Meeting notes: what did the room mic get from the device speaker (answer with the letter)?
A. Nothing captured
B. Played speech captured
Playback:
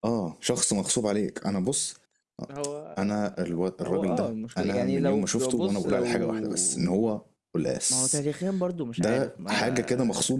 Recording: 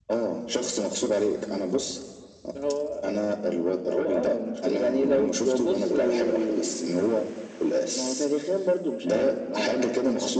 B